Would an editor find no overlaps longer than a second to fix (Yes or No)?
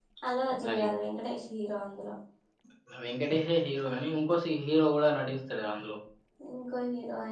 Yes